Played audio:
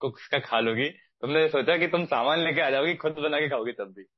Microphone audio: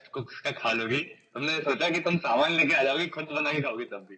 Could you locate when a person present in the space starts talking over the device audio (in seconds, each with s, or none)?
none